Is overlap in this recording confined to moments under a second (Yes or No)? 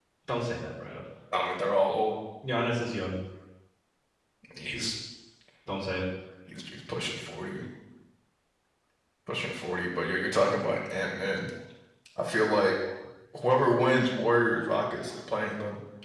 Yes